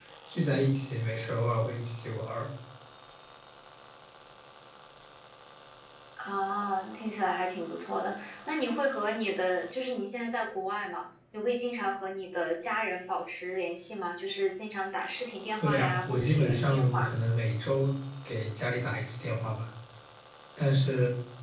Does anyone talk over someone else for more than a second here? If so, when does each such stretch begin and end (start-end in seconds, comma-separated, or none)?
15.6-17.1